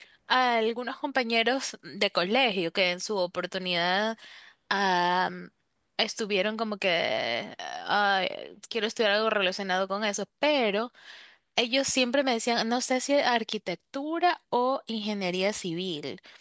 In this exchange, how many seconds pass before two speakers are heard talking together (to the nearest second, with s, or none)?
none